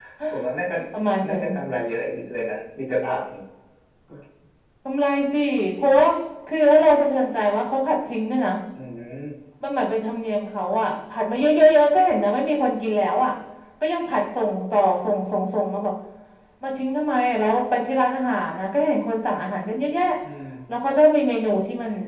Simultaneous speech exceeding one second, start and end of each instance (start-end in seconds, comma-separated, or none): none